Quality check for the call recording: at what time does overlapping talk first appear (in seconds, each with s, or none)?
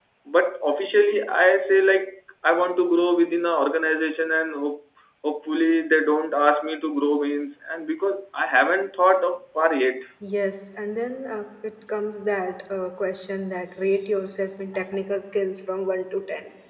none